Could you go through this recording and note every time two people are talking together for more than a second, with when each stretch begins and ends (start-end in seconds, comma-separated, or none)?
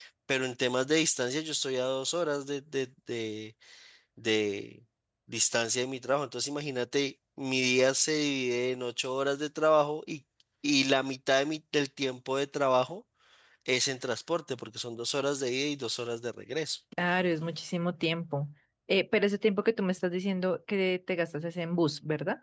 none